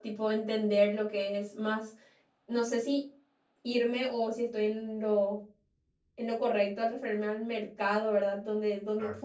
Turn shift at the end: No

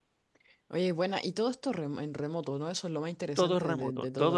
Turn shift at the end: Yes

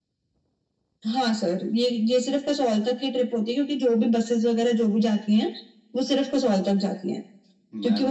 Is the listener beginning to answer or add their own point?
No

